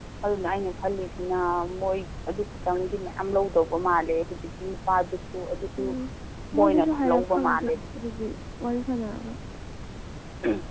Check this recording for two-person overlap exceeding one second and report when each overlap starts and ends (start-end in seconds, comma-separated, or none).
6.6-7.8